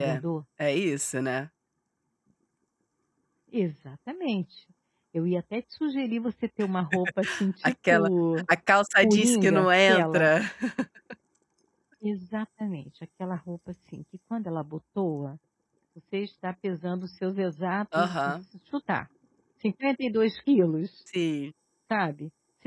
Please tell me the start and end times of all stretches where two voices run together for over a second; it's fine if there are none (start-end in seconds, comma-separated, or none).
9.0-10.3